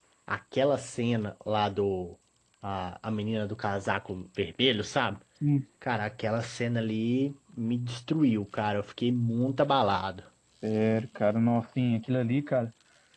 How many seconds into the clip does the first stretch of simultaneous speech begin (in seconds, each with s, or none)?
none